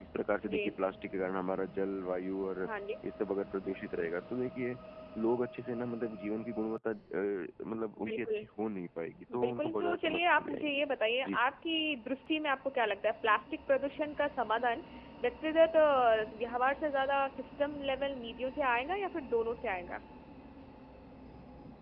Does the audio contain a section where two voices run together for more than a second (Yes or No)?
Yes